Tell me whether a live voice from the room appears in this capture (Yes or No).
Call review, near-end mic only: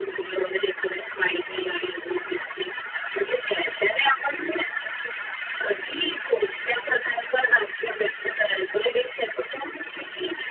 No